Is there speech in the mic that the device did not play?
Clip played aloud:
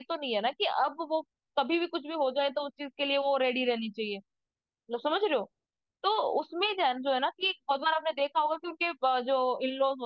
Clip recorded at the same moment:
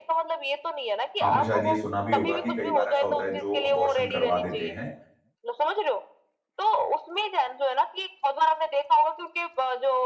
Yes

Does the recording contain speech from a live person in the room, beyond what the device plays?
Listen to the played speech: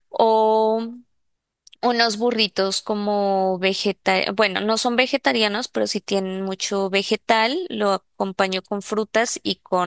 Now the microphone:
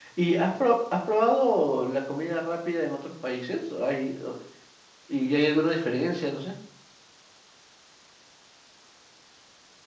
Yes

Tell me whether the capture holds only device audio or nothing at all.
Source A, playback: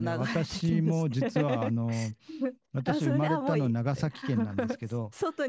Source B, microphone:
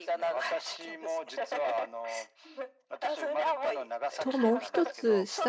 No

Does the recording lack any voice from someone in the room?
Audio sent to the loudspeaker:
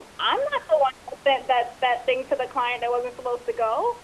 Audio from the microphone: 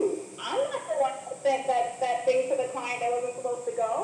Yes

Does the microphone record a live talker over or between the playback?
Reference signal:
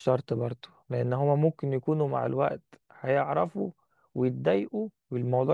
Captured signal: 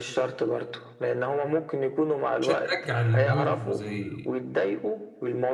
Yes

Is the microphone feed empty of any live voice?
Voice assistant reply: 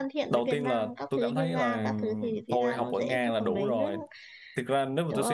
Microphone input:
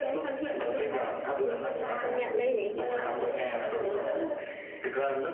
No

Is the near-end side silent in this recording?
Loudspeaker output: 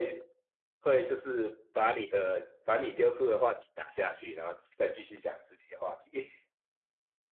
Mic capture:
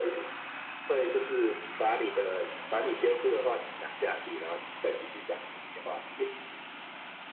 Yes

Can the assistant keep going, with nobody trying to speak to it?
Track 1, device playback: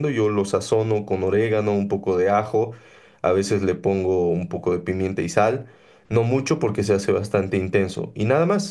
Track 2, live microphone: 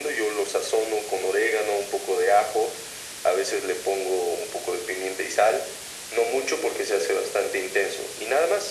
Yes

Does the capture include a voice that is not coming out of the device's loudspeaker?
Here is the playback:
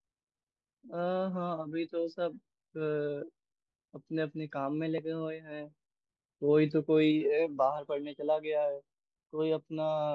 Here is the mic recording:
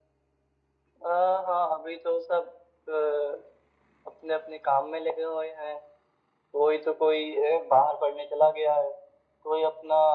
No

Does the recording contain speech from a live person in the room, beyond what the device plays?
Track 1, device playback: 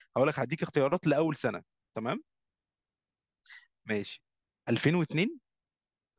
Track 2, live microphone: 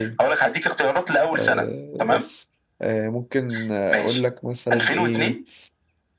Yes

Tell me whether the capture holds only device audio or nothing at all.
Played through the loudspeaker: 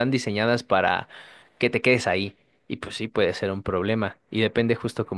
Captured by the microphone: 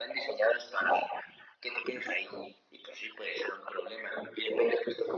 Yes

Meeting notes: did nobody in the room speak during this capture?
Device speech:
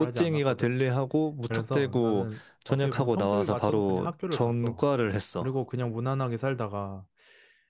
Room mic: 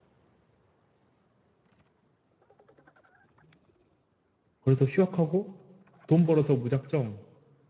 No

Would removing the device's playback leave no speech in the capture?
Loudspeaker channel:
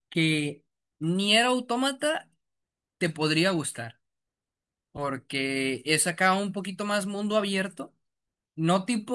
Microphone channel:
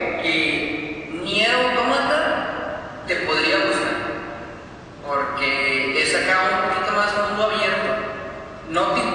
Yes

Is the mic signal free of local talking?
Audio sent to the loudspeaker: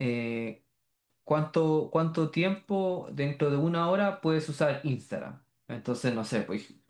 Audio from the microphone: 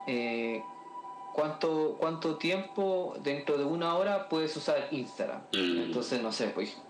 No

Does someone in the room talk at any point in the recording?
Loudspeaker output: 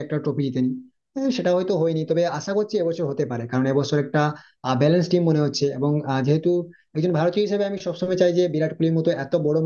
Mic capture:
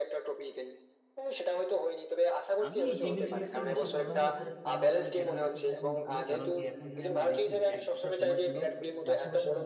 Yes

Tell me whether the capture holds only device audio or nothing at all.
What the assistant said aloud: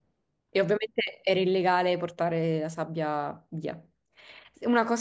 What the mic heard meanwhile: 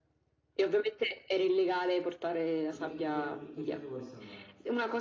No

